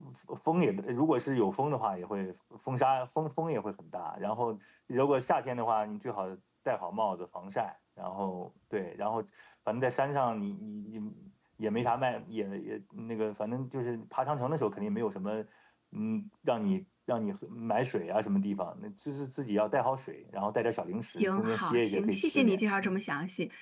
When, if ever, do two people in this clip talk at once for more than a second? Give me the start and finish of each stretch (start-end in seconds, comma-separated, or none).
21.1-23.0